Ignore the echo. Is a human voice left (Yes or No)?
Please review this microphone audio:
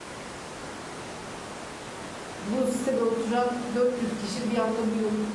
Yes